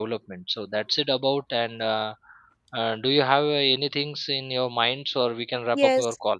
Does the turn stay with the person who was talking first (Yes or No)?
No